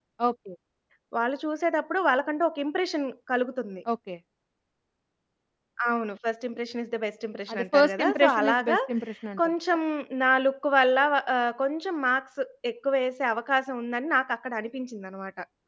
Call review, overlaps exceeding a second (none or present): present